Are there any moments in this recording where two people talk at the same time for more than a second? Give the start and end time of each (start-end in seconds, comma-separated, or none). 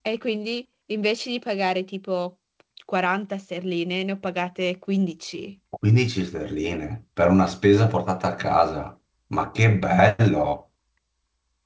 none